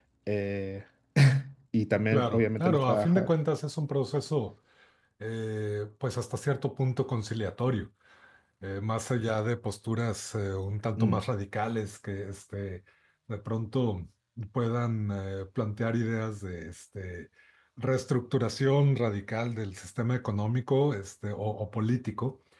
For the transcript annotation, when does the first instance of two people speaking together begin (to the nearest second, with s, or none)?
2 s